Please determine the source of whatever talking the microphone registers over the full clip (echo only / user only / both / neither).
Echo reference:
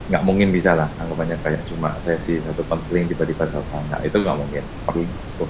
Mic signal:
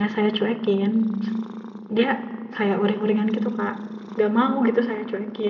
user only